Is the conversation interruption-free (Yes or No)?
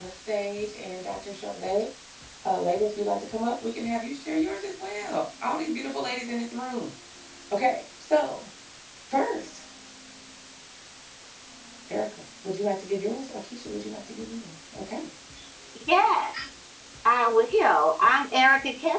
Yes